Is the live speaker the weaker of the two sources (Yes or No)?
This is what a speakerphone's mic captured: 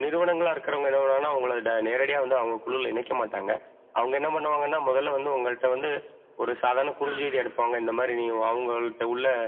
Yes